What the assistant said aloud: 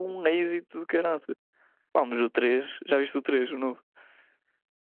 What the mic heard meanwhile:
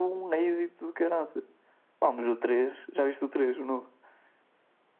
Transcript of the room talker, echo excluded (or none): none